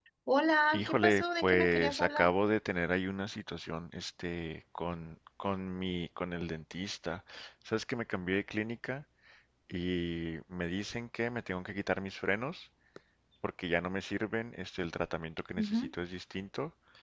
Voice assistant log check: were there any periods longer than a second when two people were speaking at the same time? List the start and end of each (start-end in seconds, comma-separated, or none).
0.7-2.2